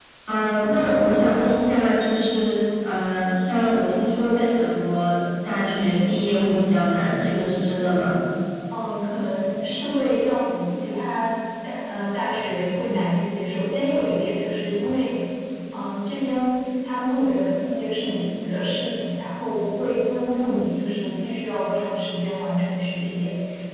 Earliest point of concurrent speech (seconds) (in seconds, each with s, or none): none